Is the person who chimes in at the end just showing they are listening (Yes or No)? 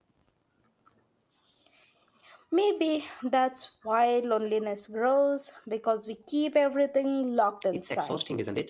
No